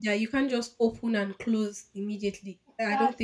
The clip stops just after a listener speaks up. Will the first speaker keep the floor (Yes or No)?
No